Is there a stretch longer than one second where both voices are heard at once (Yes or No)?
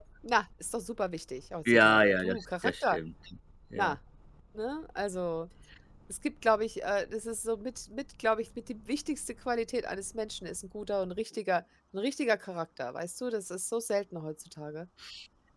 Yes